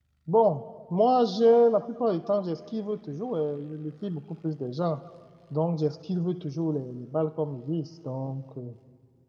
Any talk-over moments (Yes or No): No